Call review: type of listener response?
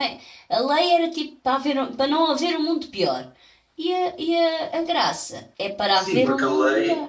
taking over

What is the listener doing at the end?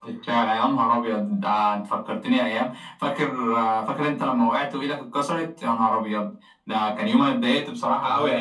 listening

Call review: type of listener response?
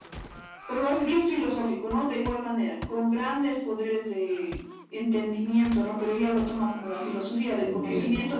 listening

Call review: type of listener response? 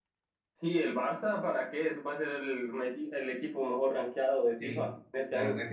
taking over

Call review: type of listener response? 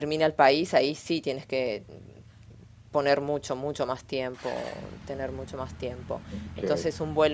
listening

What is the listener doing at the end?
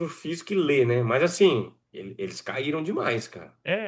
taking over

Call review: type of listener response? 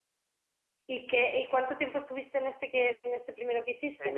taking over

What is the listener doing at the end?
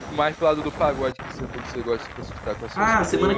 taking over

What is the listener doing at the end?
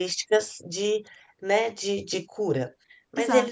listening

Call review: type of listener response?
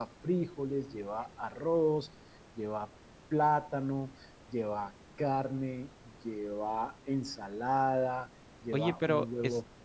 taking over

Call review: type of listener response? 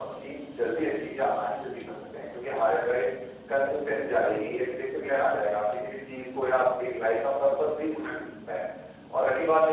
taking over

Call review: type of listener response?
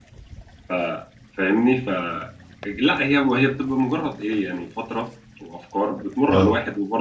listening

